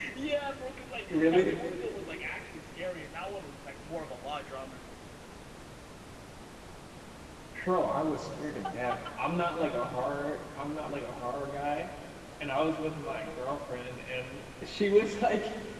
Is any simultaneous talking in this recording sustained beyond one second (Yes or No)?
No